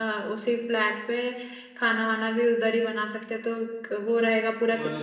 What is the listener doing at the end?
taking over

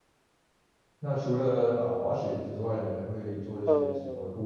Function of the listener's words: taking over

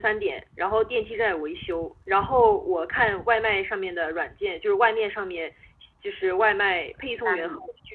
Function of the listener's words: listening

